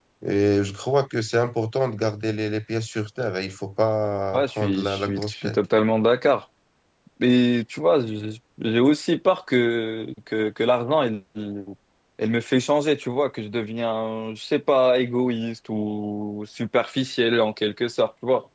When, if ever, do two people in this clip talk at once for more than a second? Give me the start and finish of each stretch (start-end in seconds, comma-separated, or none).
4.3-5.6